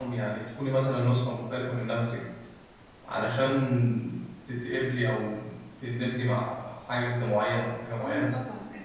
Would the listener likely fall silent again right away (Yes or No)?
No